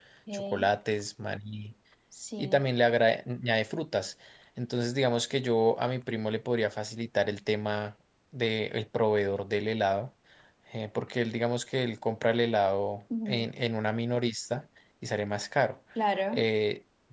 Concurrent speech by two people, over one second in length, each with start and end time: none

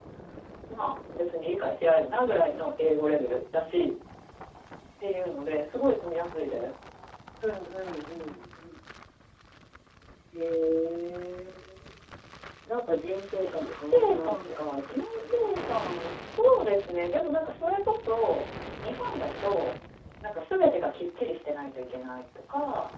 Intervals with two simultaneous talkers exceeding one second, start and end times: 13.4-16.0

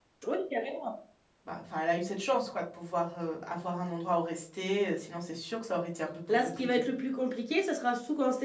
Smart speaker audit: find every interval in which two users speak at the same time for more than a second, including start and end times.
none

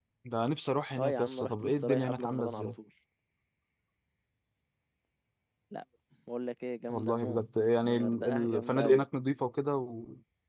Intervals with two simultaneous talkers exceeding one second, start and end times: 1.0-2.7, 7.8-9.0

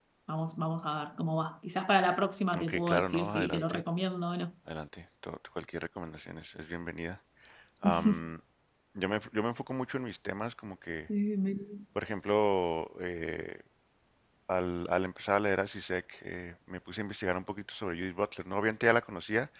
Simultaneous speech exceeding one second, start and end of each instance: 2.6-3.8

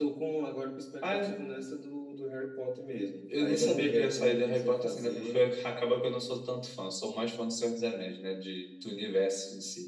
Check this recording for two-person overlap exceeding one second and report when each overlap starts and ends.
3.3-5.4

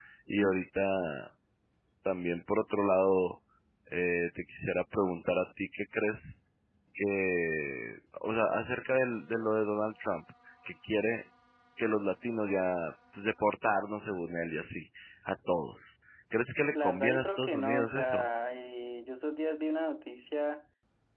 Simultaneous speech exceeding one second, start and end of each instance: 16.6-18.2

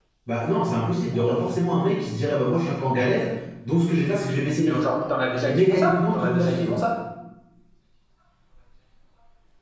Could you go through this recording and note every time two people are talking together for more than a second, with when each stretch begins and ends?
5.5-6.8

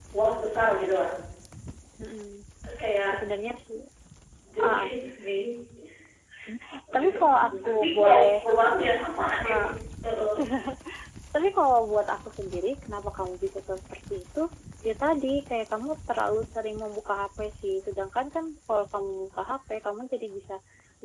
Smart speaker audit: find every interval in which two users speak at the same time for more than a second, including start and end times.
6.9-8.3

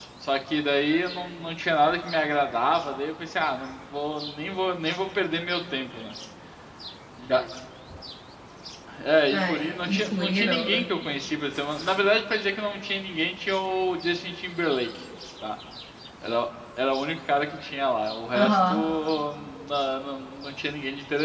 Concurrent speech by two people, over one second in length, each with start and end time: 9.3-10.8

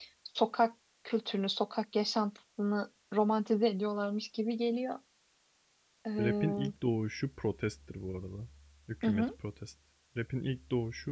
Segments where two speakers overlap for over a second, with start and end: none

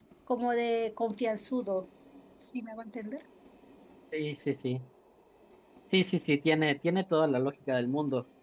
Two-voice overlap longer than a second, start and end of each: none

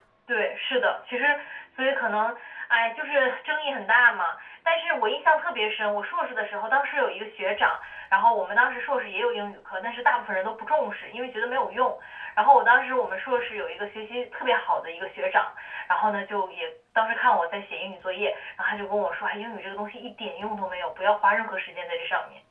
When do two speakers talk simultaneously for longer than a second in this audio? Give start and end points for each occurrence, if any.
none

